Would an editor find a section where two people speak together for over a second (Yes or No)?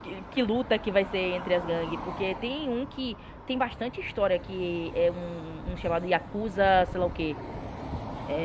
No